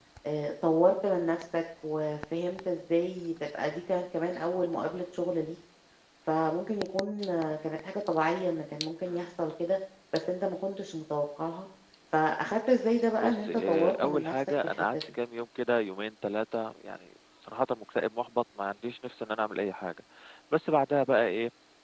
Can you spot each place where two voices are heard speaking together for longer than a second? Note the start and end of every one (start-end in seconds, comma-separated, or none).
13.2-14.9